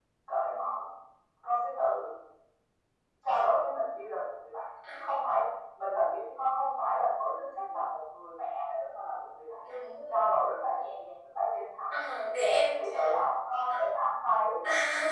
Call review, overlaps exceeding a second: none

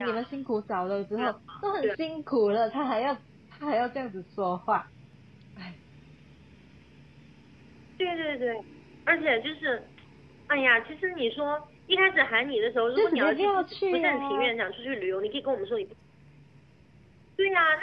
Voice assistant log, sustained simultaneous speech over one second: present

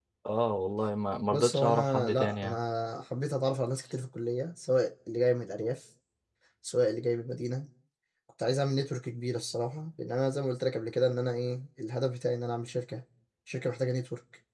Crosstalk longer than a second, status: present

